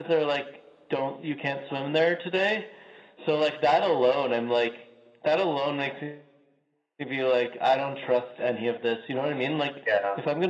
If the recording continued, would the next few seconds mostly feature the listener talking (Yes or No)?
No